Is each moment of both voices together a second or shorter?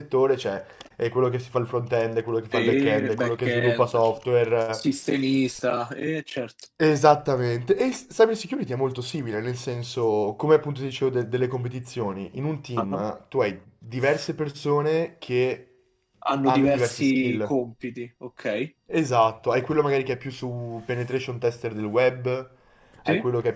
No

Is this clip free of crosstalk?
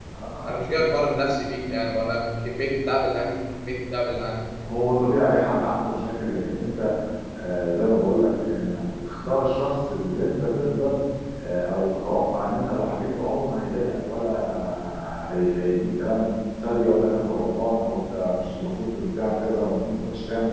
Yes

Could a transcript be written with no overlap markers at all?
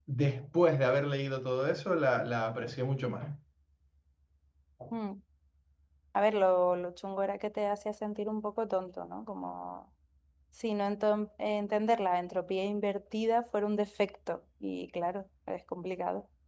Yes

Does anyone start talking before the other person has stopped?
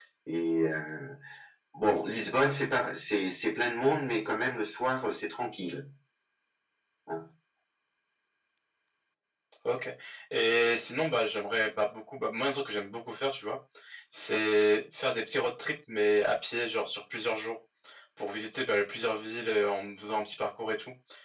No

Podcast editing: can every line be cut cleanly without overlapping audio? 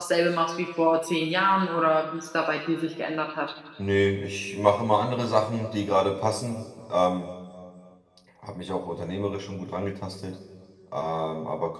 Yes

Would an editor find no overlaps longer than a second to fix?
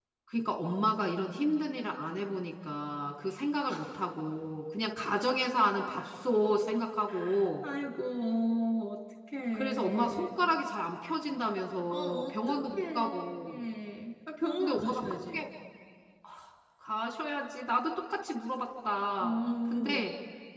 No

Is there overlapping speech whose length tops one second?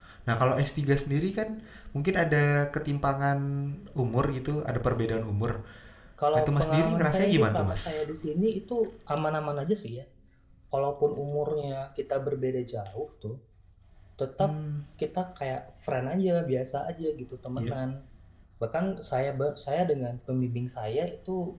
Yes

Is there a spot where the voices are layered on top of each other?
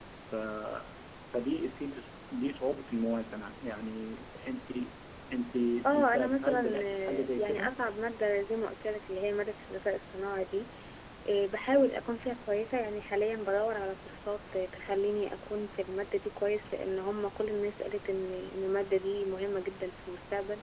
Yes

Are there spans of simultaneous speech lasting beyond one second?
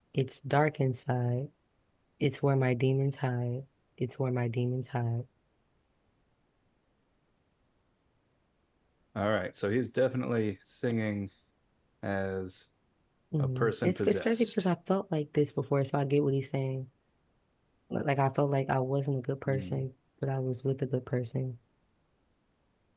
Yes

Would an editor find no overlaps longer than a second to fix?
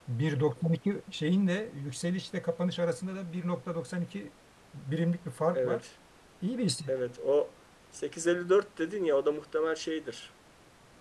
Yes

